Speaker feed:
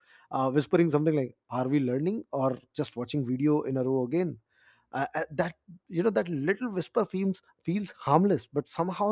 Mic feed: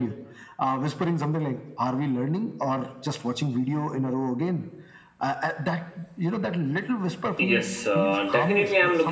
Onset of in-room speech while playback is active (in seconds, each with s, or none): 7.4 s